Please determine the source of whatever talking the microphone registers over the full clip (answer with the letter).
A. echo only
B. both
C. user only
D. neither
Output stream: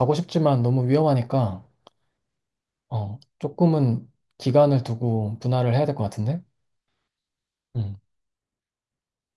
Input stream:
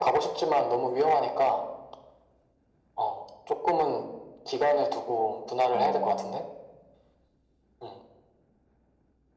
B